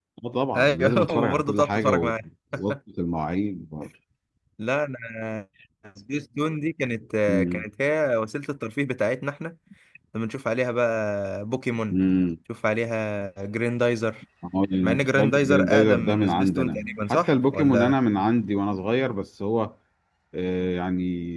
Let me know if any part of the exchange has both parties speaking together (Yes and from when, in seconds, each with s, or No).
Yes, from 0.6 s